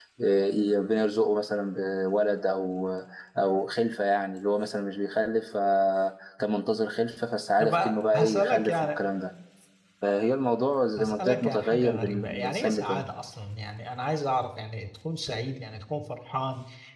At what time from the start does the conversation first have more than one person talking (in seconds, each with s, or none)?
7.6 s